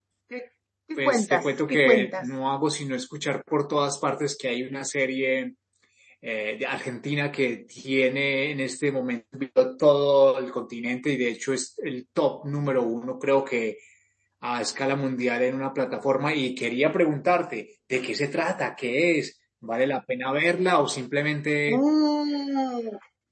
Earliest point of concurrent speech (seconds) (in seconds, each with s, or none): 1.0 s